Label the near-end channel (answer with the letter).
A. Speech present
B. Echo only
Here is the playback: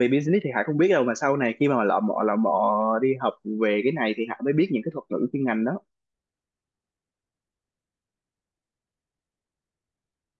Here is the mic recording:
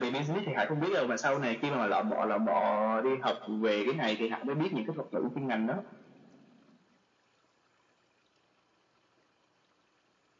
B